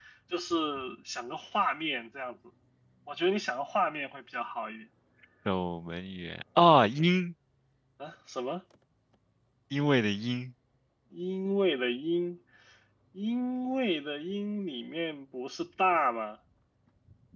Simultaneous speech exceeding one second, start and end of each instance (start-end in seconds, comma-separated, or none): none